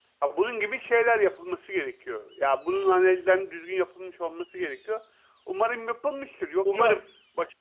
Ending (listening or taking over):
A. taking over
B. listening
B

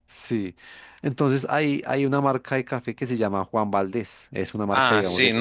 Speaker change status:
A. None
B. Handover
B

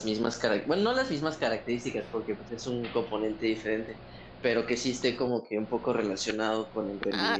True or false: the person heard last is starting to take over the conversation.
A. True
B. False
A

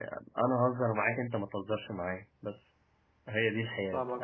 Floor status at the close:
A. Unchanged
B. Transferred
B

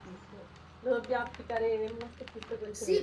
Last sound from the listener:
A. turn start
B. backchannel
A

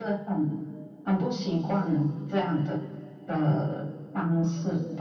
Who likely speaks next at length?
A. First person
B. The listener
B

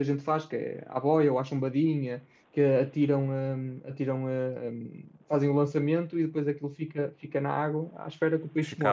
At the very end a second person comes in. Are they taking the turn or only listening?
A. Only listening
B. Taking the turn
B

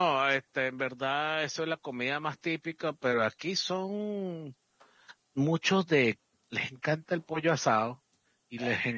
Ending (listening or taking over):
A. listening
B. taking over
A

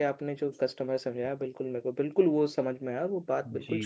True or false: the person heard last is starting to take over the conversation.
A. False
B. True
B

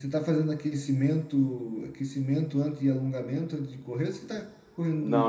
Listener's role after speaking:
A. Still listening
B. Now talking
B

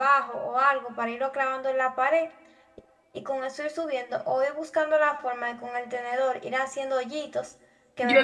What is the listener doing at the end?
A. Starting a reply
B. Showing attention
A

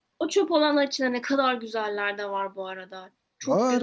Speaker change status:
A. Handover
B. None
A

